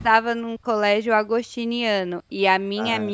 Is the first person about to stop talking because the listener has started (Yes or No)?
No